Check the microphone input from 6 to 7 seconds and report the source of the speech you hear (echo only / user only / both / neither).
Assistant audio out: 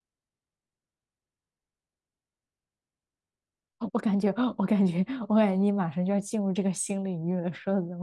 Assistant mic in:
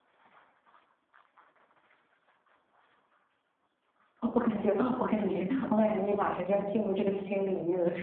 echo only